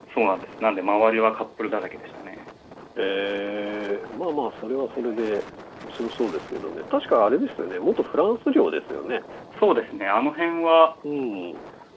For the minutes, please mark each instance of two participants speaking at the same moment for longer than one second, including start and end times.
none

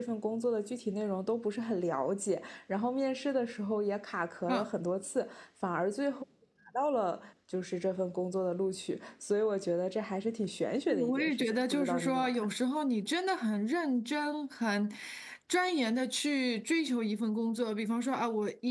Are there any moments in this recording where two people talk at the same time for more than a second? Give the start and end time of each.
10.9-12.5

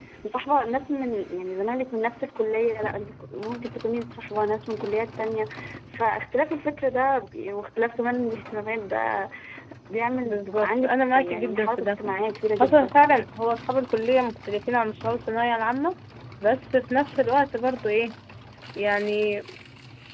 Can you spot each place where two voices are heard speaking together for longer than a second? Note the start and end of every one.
10.2-12.0

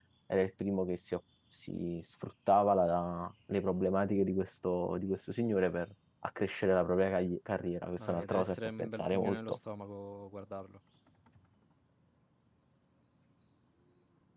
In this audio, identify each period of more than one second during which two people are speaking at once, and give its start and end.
8.0-9.6

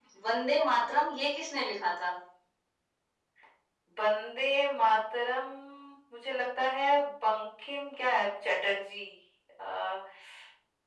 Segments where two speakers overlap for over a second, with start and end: none

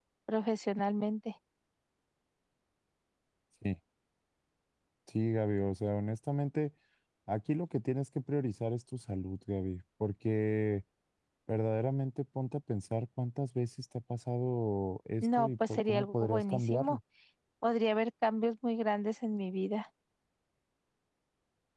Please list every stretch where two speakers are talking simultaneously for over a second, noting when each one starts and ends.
15.2-17.0

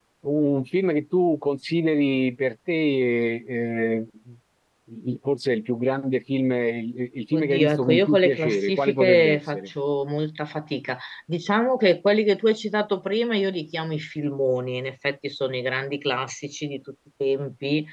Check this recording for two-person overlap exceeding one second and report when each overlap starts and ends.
7.3-9.7

